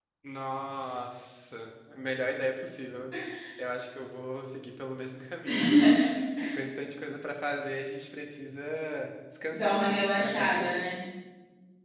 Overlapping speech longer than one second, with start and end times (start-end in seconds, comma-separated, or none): 9.5-10.7